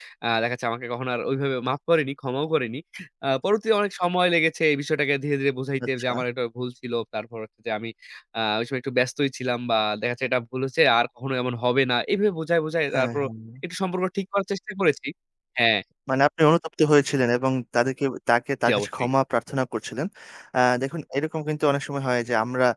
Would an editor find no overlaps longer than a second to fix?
Yes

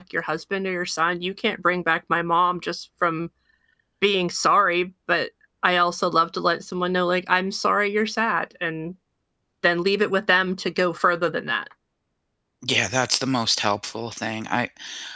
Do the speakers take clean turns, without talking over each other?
Yes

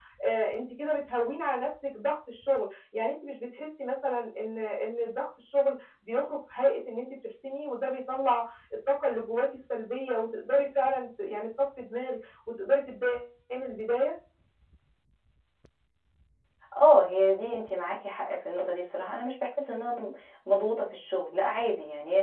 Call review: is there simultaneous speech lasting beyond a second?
No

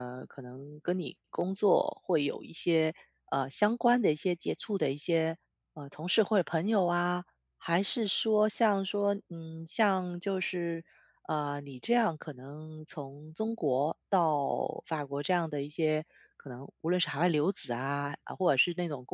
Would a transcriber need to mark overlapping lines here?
No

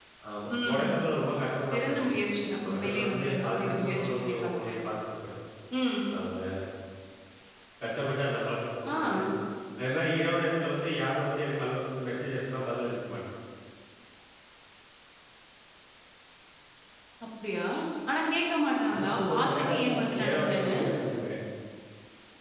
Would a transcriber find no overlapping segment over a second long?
No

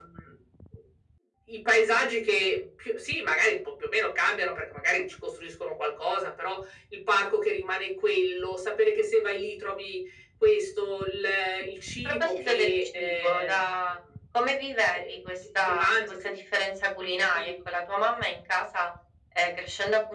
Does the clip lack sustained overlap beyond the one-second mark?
No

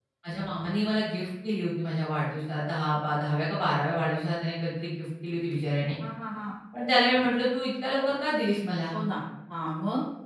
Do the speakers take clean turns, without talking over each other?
Yes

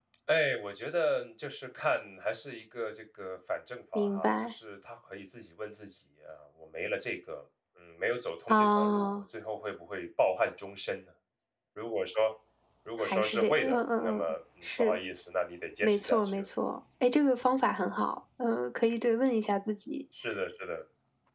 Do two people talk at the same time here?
Yes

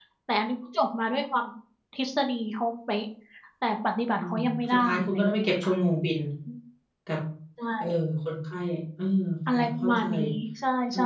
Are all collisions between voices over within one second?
No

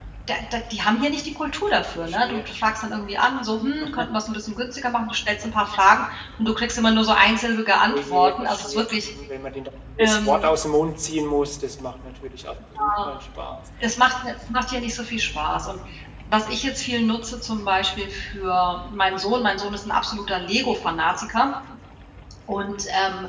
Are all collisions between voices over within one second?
No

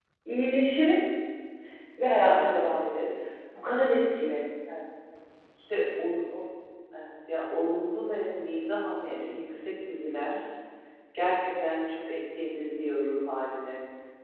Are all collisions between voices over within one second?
Yes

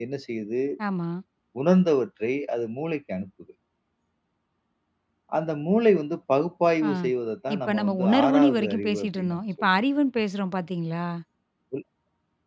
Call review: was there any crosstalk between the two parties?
Yes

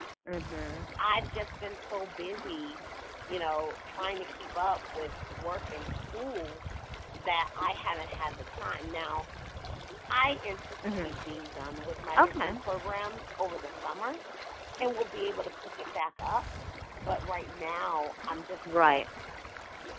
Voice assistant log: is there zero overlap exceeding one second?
Yes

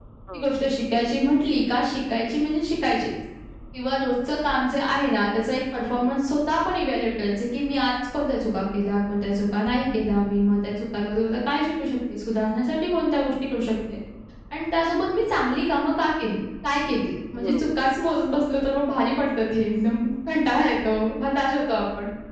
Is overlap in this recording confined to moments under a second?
Yes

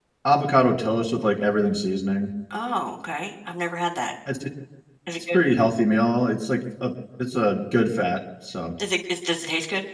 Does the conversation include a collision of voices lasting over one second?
No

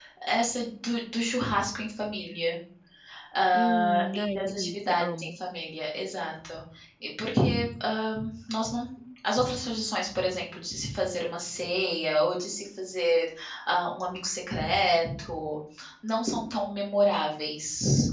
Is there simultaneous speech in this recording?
Yes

